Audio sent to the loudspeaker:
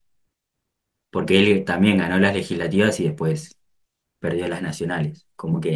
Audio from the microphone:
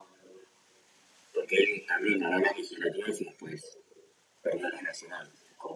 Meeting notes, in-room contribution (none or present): none